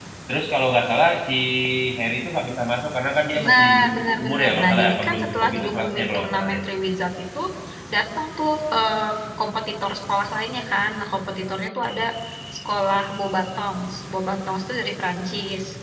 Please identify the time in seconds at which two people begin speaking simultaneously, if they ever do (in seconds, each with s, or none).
3.3 s